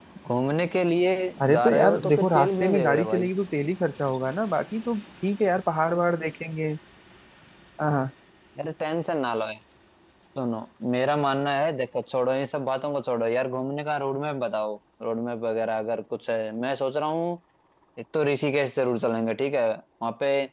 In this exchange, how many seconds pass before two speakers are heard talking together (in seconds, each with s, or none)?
1.5 s